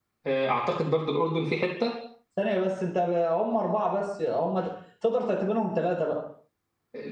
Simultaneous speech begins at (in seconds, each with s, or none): none